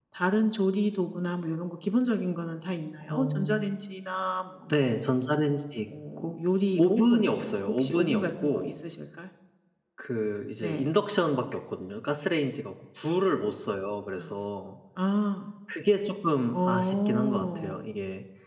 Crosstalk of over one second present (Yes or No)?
Yes